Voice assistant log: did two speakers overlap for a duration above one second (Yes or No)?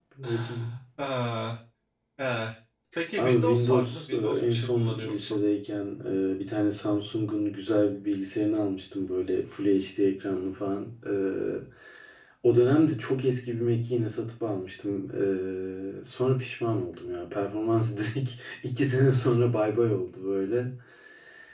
Yes